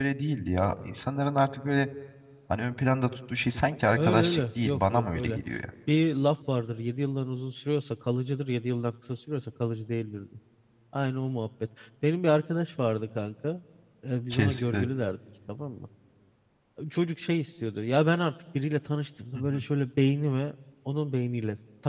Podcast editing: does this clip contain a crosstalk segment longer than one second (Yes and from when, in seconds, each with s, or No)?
Yes, from 4.0 s